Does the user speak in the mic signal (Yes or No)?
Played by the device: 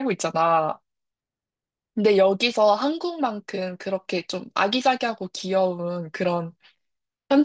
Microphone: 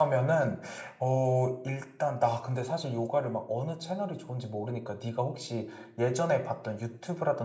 Yes